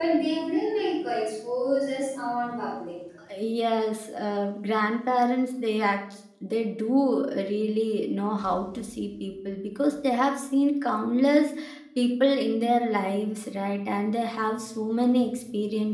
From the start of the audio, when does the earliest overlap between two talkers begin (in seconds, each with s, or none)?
none